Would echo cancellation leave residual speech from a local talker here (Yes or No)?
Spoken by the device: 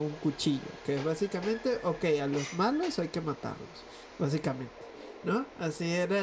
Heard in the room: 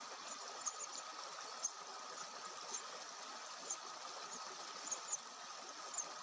No